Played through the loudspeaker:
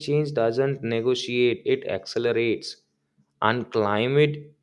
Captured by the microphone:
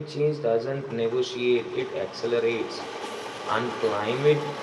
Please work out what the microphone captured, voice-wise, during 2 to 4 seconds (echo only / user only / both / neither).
echo only